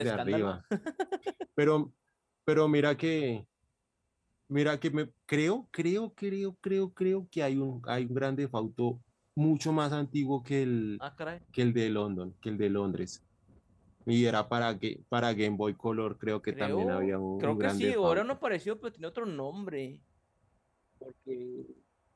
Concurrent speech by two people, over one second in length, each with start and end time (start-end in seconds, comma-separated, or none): 16.5-18.2